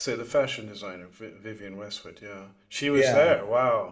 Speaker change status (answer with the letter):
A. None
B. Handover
B